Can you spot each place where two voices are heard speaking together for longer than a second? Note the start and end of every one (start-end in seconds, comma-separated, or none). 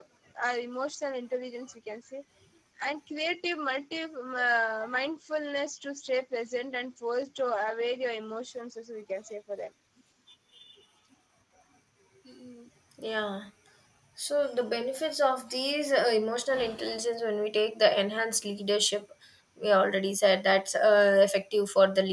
none